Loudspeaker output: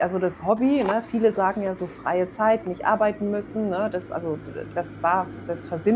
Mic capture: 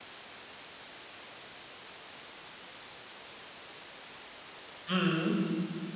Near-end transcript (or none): Mhm.